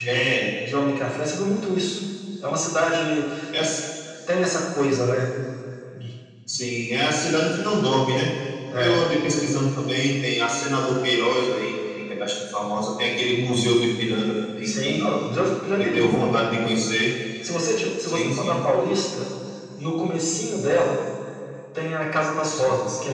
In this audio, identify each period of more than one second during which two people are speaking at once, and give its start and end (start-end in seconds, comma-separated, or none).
none